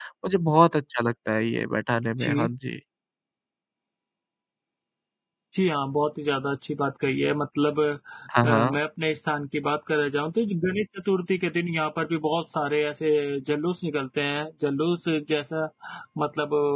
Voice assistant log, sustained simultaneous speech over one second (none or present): none